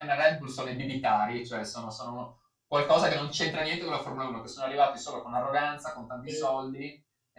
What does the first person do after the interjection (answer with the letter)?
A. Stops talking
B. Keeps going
B